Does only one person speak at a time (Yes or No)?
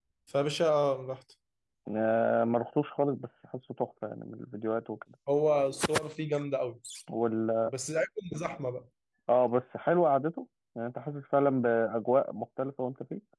Yes